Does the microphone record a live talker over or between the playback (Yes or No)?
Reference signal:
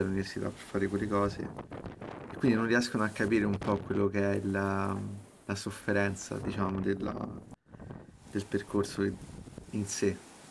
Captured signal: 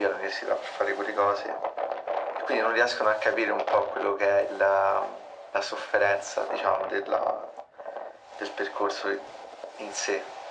No